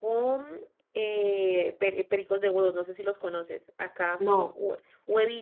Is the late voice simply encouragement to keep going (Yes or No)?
Yes